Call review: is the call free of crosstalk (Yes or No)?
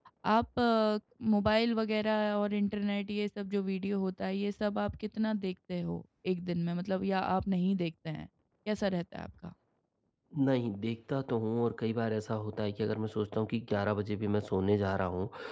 Yes